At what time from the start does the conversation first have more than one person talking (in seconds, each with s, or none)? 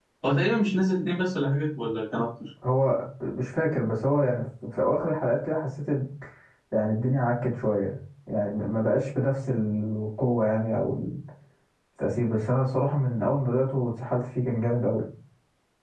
none